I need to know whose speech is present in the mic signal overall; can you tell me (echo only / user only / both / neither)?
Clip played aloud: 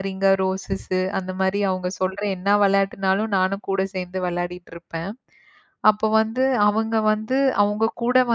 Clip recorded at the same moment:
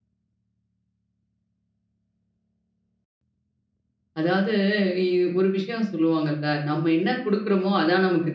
user only